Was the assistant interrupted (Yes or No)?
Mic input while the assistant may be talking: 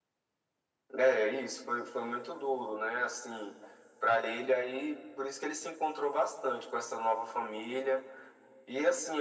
No